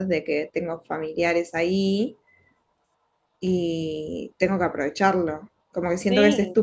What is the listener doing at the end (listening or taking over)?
listening